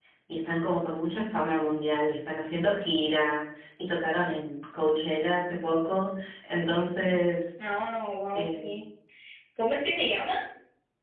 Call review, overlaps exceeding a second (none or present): none